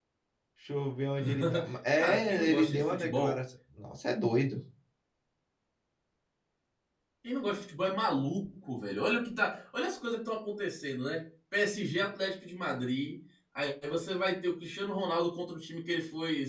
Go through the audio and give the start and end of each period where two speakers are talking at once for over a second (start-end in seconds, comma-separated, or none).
2.0-3.4